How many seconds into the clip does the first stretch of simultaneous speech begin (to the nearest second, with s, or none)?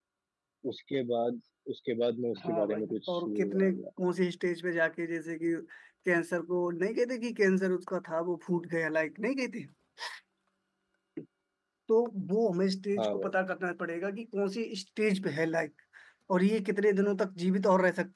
2 s